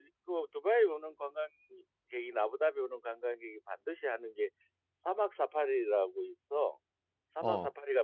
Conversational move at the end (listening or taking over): listening